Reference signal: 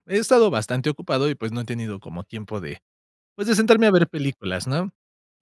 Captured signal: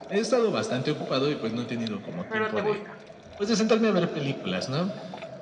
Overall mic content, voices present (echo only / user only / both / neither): both